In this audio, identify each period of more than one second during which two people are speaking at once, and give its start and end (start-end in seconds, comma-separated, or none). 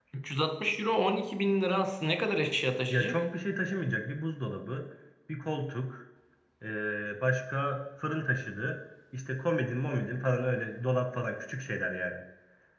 none